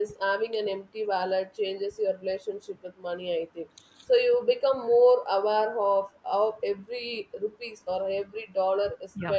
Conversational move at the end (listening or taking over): listening